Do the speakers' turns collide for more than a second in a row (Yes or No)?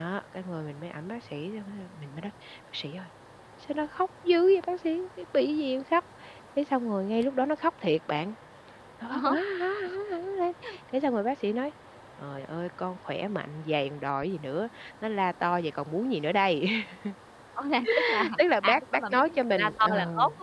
Yes